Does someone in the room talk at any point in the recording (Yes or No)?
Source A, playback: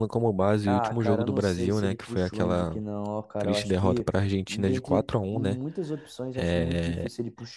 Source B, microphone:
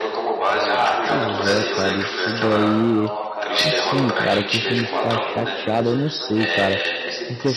Yes